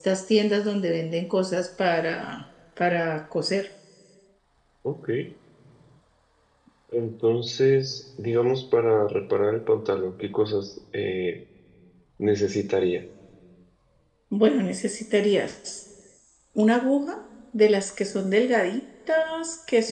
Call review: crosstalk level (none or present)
none